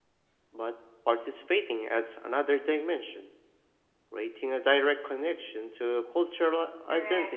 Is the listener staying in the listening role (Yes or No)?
No